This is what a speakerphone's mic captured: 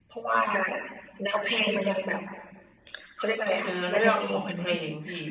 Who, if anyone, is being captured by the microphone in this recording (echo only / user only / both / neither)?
both